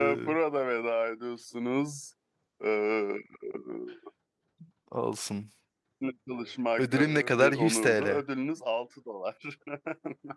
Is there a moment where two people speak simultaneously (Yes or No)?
Yes